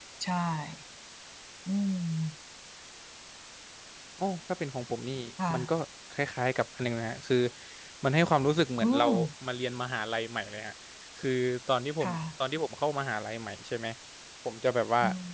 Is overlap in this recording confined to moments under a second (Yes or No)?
Yes